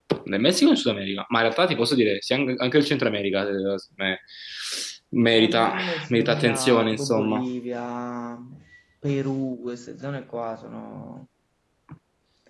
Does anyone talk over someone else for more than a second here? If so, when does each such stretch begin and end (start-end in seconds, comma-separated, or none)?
5.3-7.5